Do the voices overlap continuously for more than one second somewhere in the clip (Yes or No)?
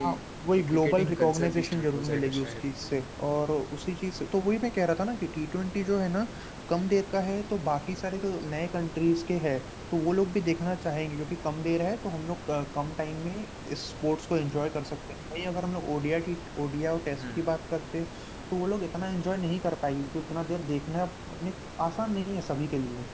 Yes